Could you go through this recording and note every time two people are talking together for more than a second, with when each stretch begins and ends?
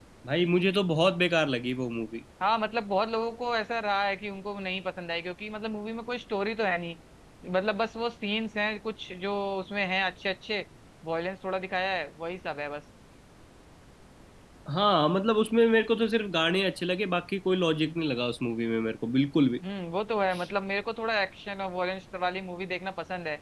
none

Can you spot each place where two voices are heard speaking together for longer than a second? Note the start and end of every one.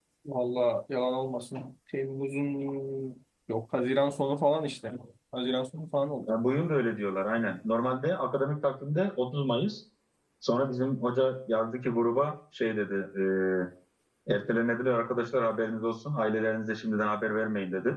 none

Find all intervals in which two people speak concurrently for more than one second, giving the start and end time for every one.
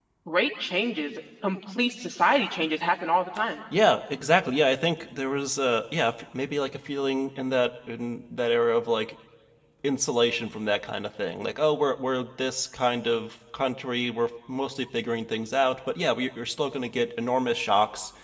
none

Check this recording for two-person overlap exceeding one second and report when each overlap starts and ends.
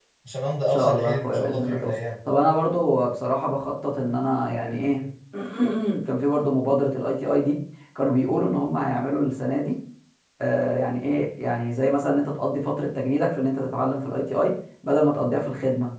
0.7-1.9

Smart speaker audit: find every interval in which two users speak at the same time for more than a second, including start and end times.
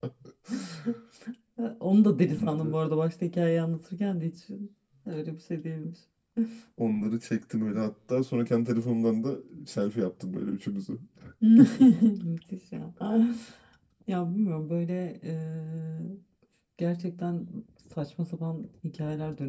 none

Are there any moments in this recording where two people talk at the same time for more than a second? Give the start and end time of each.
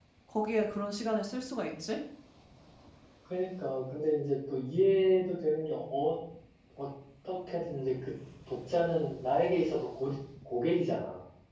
none

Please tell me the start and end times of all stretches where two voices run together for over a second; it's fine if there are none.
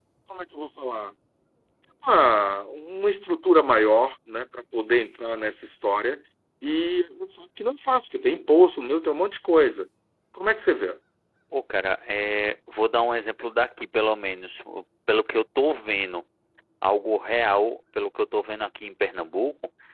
none

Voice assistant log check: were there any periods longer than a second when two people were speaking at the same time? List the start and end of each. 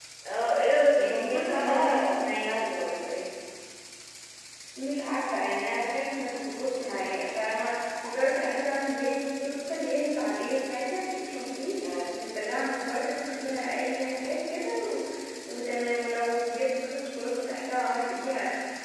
1.0-2.6

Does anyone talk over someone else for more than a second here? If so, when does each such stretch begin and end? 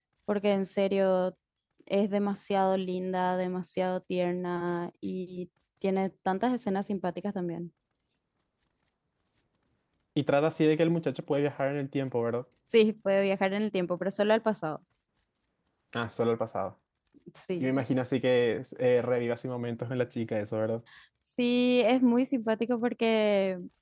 none

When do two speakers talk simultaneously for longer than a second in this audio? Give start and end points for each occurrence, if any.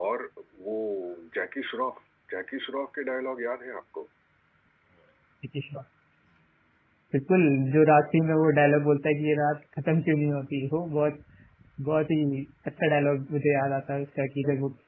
none

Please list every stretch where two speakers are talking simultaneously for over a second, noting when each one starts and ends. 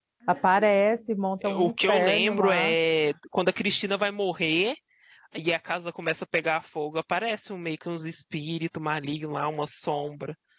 1.6-2.8

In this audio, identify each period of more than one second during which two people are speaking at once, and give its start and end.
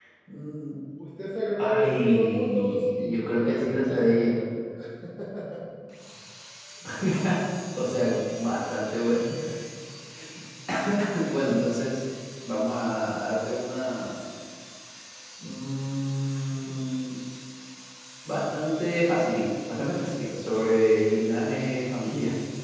1.6-4.4

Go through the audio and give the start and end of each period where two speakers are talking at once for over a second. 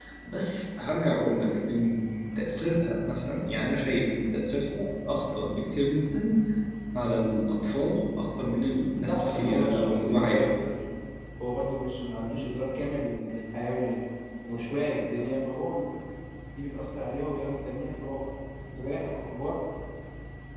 9.1-10.6

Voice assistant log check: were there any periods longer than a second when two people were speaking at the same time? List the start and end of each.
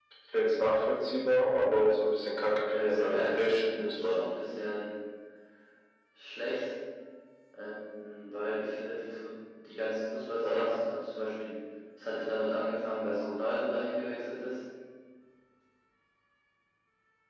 2.7-4.2

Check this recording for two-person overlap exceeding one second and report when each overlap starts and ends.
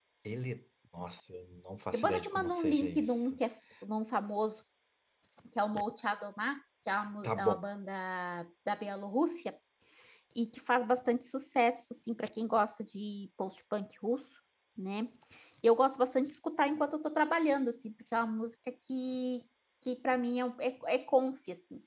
1.9-3.1

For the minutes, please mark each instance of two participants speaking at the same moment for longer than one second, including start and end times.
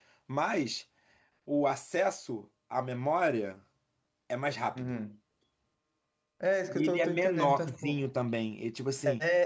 6.7-8.0

